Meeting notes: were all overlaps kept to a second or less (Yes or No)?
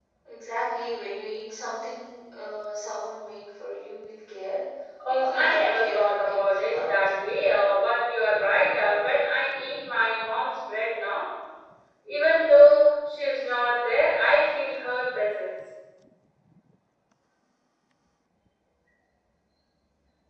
No